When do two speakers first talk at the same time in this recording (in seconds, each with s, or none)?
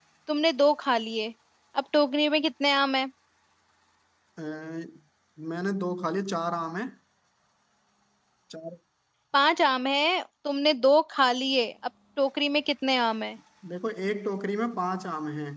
none